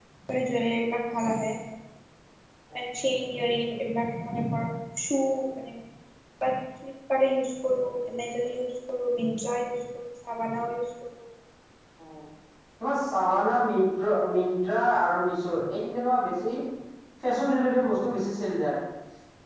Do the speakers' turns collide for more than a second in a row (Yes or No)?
No